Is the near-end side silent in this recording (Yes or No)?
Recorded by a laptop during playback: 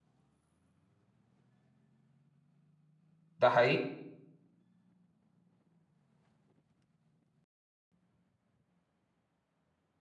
No